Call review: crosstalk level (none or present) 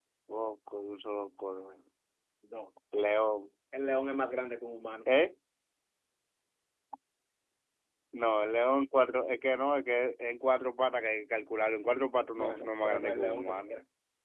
present